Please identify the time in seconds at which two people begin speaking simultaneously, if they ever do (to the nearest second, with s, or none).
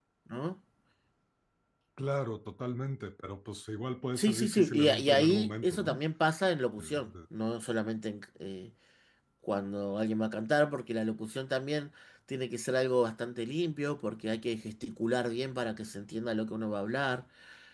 4 s